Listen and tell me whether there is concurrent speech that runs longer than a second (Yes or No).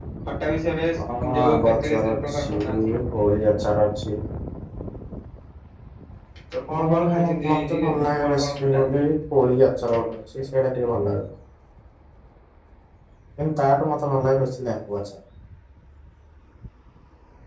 Yes